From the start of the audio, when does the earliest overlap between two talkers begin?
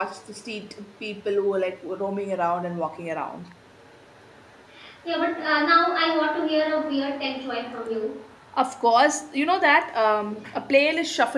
none

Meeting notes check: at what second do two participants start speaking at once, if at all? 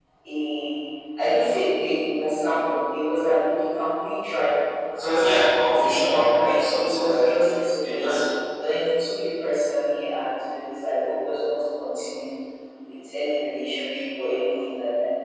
5.6 s

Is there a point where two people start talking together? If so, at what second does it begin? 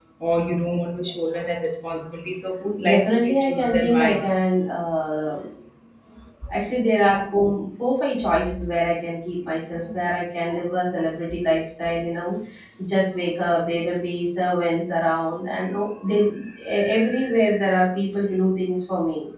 2.9 s

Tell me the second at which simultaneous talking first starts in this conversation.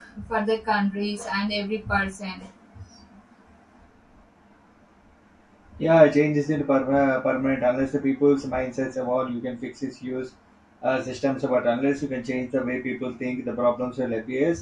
none

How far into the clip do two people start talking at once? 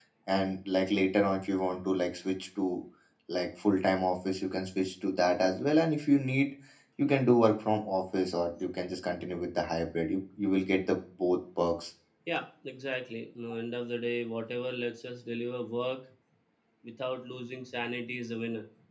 none

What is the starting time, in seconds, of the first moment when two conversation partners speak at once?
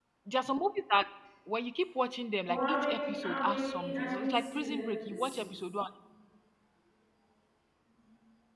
2.5 s

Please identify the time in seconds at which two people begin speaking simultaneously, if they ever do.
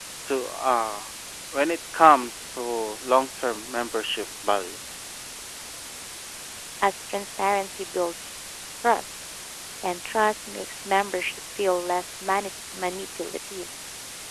none

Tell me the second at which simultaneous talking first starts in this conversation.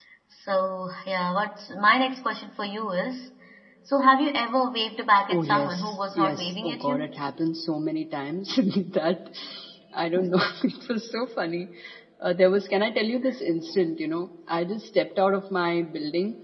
5.3 s

